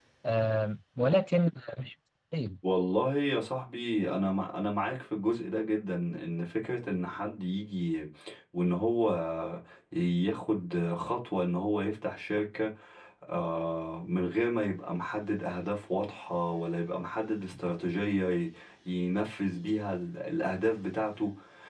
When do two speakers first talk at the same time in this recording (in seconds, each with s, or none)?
none